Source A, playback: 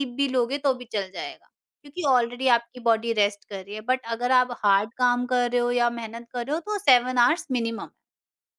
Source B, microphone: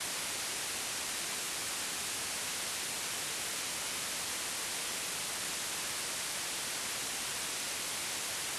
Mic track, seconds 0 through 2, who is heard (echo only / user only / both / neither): neither